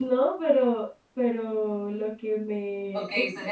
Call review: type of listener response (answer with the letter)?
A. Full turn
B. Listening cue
A